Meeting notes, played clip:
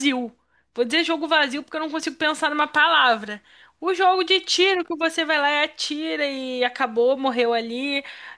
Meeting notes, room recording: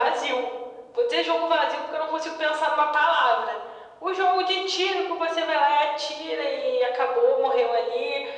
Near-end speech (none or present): none